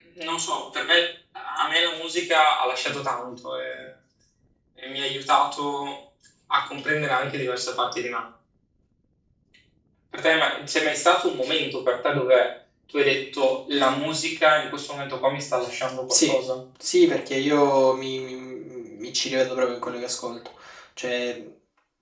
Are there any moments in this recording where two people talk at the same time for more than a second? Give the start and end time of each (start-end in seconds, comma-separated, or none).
none